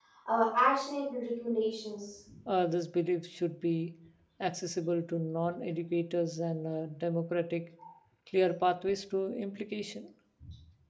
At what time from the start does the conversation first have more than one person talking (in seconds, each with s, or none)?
none